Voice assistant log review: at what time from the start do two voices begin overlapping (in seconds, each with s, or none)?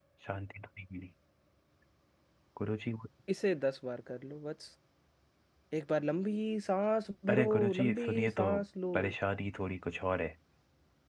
7.3 s